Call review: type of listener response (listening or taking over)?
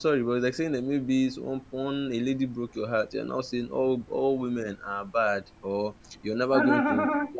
listening